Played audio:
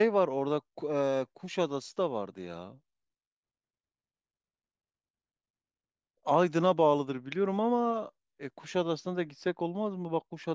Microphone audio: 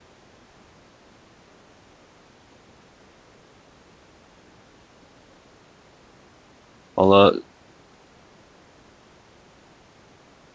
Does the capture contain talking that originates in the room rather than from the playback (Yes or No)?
Yes